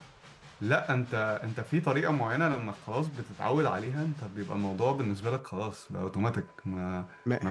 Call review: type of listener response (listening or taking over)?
listening